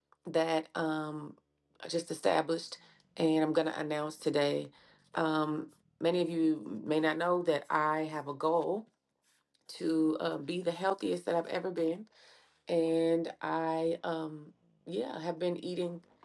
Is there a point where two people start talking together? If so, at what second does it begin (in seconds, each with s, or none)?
none